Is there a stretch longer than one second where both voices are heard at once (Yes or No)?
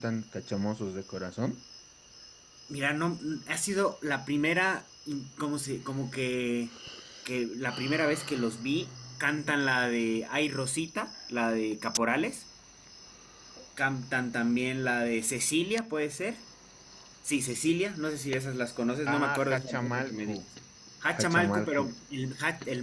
Yes